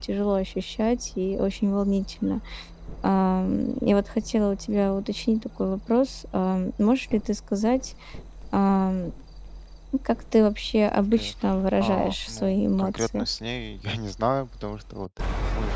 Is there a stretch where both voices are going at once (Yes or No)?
Yes